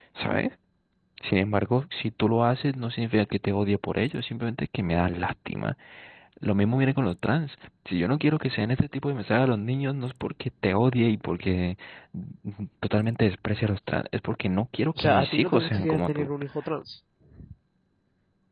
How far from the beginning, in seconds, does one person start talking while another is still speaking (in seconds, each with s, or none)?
15.0 s